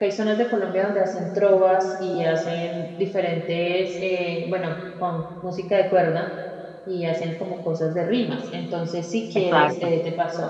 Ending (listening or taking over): listening